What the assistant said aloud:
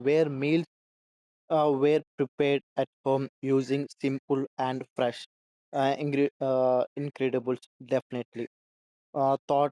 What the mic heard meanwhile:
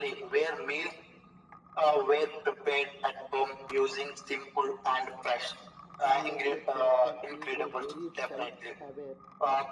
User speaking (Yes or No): Yes